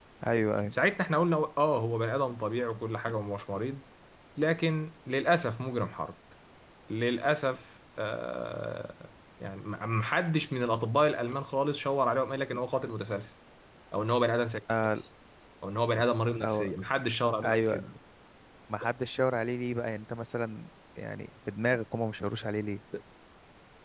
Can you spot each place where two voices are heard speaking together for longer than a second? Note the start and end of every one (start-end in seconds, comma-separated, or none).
none